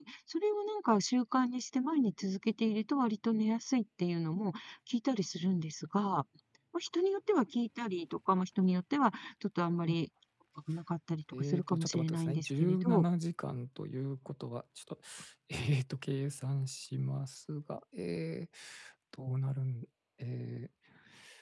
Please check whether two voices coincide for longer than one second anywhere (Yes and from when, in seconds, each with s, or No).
Yes, from 11.3 s